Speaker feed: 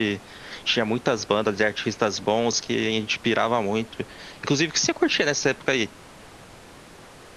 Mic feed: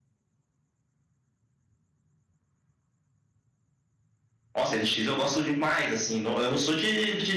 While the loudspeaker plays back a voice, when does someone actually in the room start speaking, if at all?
4.5 s

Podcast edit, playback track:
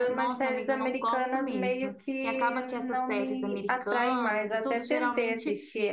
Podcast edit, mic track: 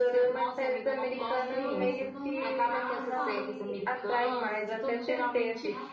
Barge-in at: 1.1 s

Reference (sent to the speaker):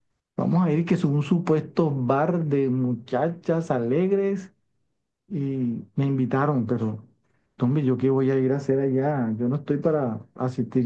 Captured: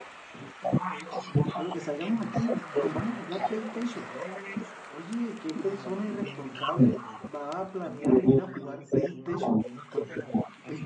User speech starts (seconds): 1.5 s

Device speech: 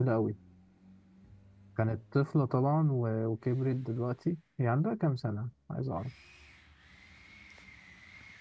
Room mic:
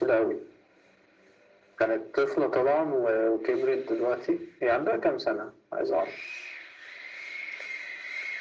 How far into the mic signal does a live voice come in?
none

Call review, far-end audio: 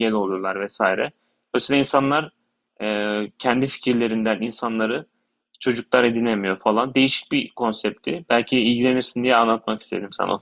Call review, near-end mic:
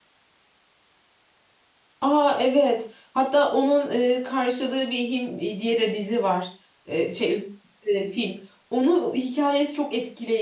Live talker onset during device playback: 2.0 s

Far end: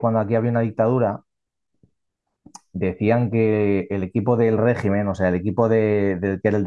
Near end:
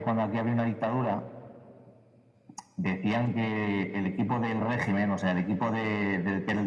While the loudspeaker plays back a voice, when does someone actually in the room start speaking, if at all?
none

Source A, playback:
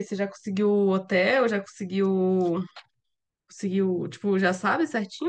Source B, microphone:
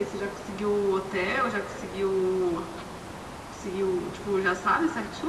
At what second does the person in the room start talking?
none

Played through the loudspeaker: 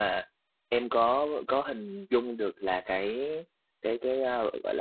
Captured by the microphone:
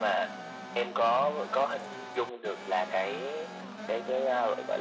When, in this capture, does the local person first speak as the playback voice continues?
none

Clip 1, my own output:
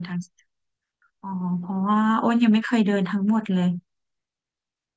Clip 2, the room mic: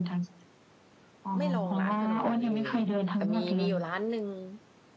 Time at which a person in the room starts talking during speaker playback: 1.4 s

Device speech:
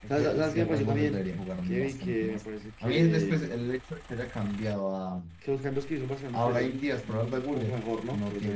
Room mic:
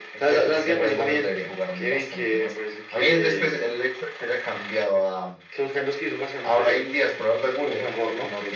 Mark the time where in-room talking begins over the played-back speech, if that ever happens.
none

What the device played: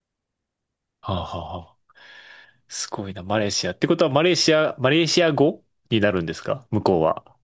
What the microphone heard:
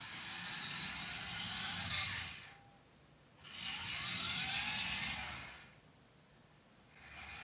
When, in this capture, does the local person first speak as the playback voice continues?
none

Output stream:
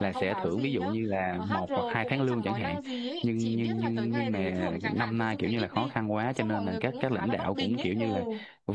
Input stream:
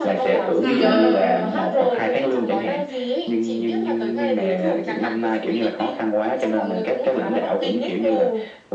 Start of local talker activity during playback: 0.6 s

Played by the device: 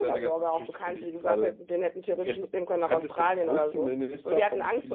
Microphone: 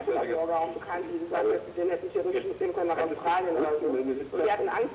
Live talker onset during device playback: none

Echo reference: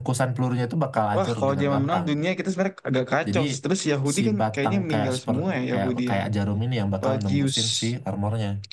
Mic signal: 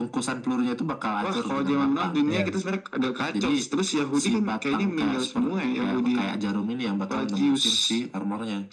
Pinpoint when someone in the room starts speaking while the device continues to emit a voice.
2.3 s

